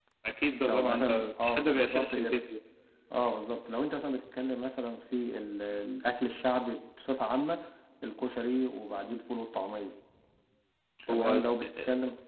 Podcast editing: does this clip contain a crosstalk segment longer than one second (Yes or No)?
Yes